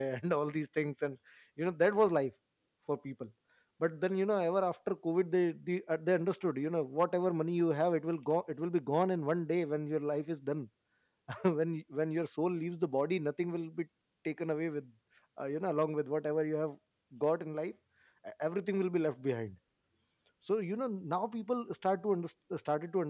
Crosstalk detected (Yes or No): No